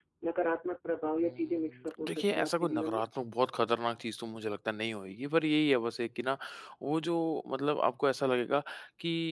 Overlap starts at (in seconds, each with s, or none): 1.2 s